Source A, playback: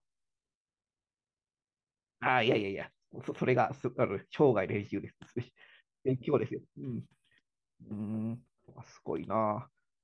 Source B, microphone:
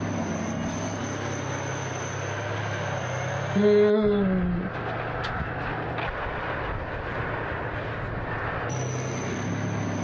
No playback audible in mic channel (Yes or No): Yes